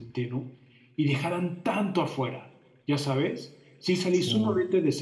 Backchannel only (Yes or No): Yes